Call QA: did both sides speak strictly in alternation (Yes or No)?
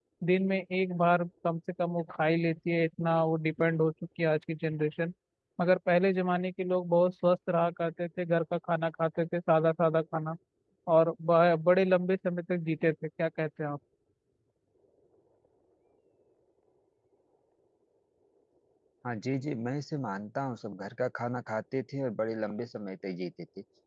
Yes